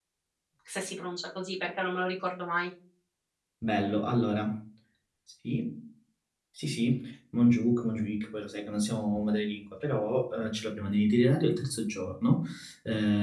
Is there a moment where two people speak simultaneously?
No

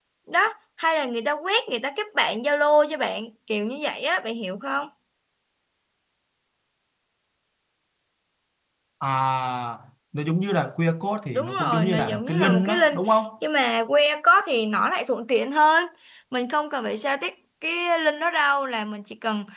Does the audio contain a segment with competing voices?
Yes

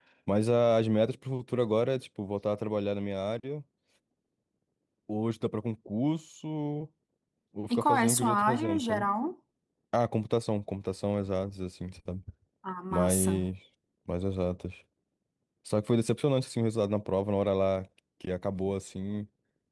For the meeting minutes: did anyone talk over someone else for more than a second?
Yes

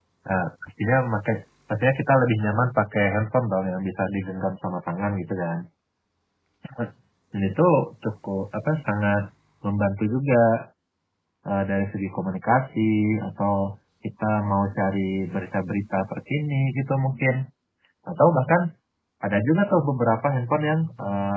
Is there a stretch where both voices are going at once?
No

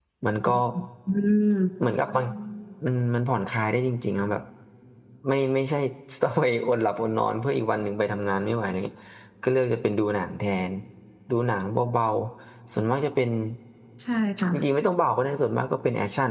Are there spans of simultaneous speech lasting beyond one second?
No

